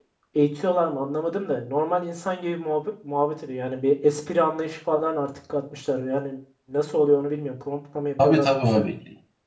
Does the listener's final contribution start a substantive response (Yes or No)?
Yes